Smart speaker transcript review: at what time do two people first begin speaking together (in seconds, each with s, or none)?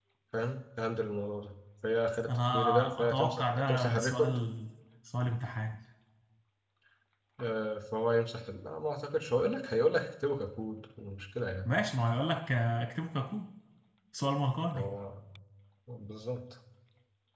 2.3 s